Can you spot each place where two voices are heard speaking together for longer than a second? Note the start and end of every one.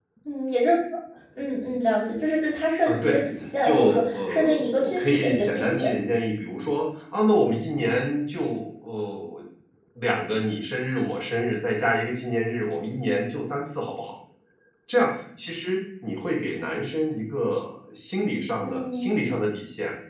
3.6-5.9

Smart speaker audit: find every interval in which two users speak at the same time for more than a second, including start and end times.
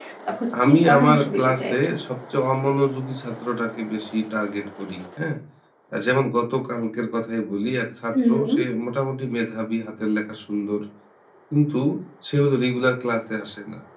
0.6-1.9

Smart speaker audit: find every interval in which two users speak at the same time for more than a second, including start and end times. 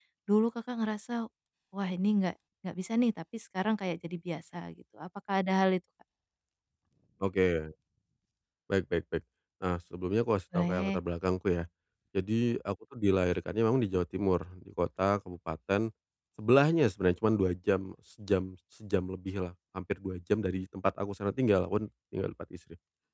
none

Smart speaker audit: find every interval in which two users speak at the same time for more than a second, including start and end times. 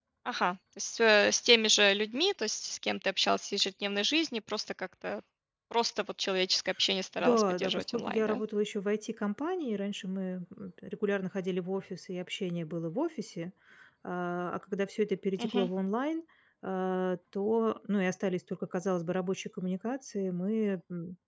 7.2-8.4

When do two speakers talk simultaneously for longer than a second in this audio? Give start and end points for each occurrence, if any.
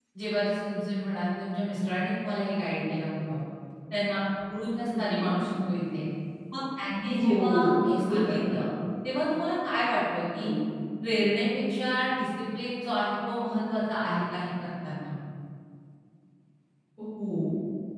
7.2-8.4

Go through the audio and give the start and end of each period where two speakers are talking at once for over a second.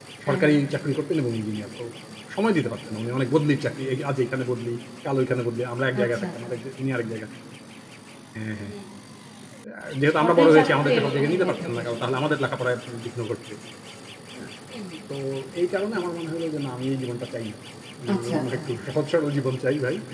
10.2-12.3

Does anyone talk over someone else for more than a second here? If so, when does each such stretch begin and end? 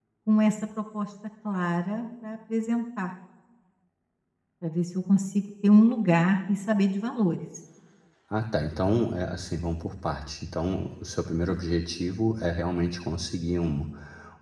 none

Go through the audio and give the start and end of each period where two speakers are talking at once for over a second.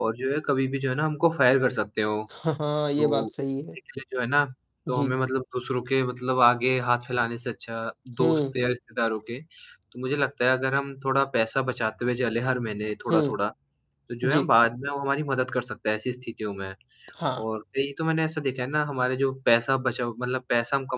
none

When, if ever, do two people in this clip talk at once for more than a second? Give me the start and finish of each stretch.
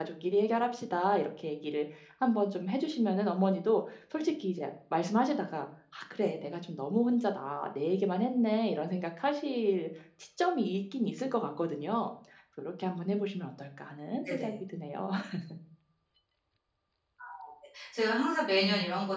none

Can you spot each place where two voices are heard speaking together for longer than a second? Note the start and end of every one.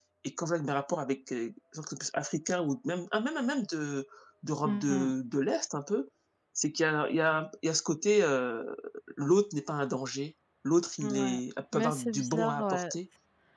11.7-12.9

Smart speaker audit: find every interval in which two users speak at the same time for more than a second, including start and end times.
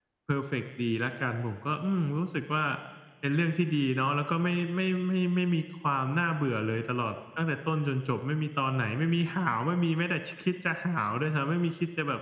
none

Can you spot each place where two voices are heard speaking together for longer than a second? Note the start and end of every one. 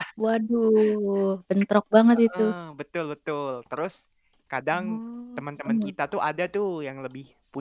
none

